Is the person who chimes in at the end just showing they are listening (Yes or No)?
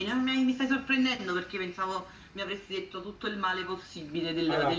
No